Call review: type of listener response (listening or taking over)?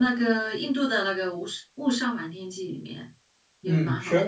taking over